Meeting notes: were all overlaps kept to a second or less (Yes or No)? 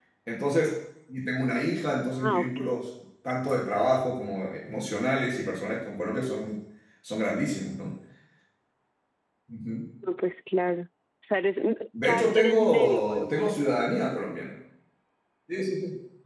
No